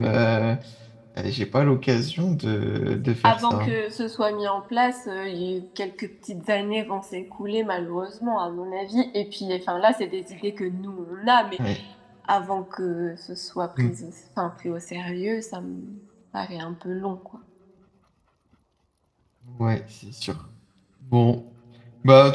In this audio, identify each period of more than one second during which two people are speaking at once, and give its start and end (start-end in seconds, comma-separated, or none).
none